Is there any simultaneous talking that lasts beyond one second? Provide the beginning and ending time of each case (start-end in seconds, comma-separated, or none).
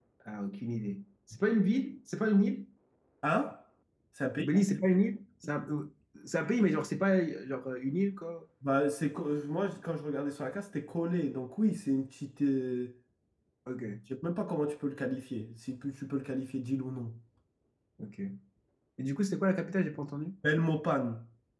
none